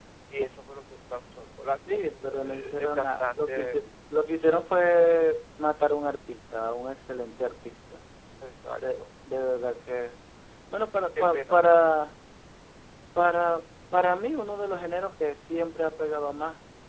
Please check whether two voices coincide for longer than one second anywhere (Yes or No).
Yes